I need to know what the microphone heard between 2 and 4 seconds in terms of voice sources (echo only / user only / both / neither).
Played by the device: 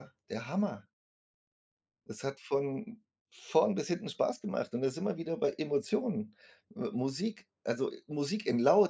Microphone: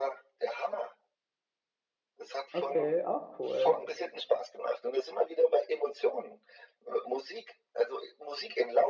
both